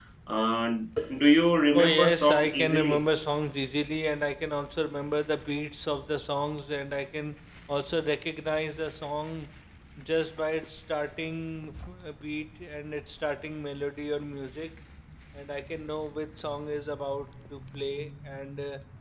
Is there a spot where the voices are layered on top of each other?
Yes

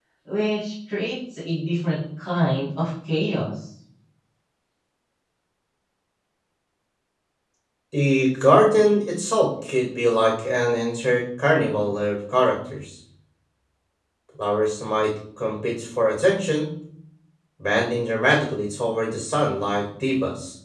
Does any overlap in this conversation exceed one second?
No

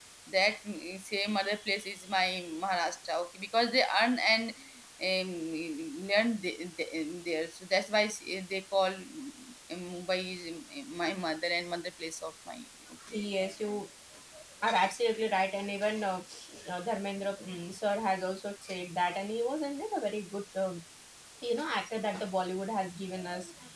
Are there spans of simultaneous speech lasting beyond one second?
No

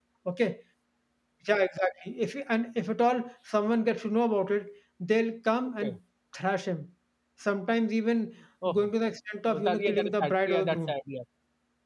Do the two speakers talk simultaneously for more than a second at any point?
Yes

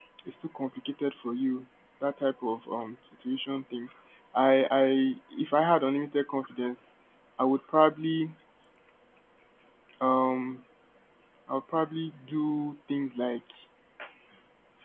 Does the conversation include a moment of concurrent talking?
No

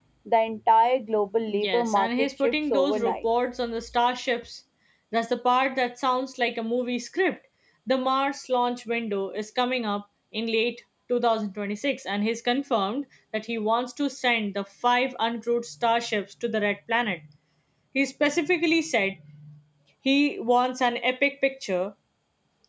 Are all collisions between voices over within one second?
No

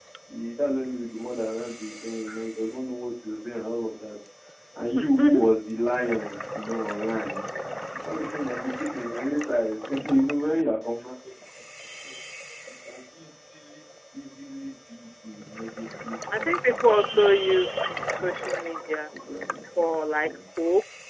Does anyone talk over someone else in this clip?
Yes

